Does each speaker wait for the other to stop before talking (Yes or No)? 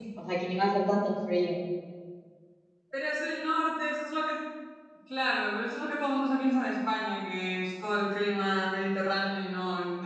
Yes